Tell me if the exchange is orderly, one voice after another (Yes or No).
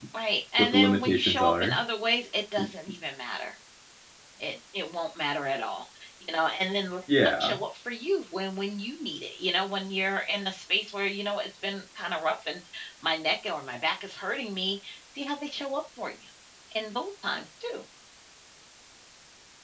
No